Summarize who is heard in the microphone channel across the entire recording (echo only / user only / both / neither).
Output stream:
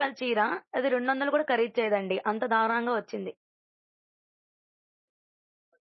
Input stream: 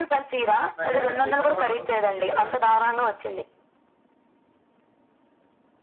both